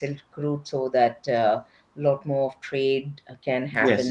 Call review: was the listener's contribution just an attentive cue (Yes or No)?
Yes